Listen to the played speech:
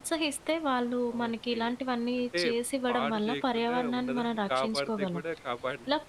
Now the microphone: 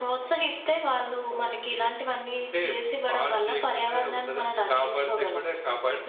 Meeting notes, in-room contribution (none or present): none